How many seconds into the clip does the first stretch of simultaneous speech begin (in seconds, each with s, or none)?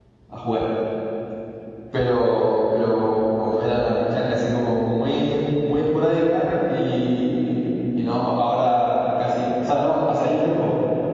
none